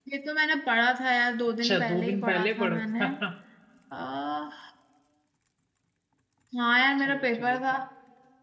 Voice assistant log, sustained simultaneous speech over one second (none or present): present